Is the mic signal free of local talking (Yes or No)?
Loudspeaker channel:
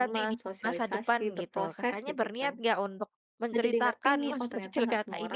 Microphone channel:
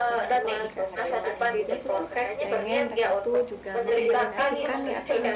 No